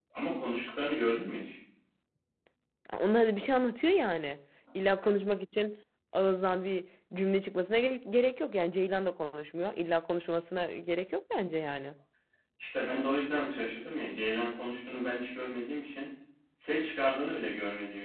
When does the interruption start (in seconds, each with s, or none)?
none